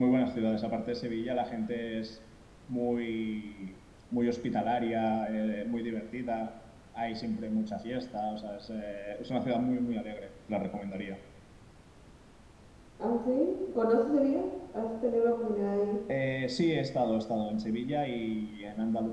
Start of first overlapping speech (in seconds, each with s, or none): none